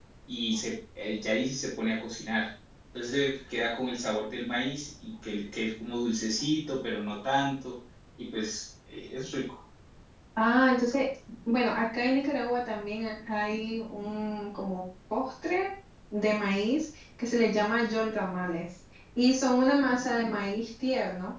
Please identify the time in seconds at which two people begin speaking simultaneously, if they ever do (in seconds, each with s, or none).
none